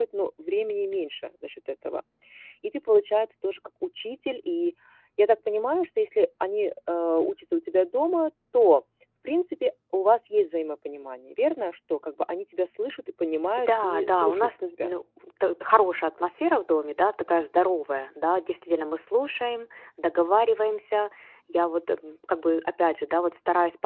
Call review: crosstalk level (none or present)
present